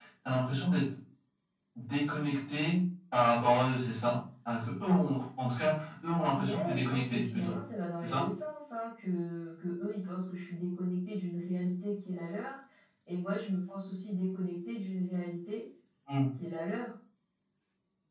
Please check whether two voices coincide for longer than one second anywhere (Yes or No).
Yes